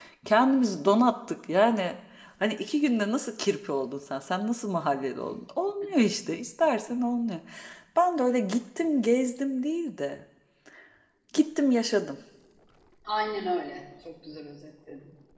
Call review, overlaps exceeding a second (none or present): none